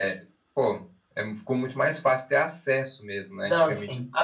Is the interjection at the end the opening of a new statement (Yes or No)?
Yes